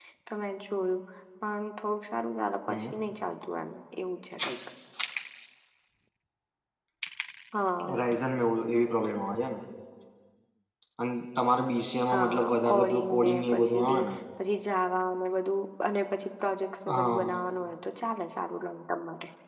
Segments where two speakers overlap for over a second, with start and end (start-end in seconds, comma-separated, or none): 12.1-14.0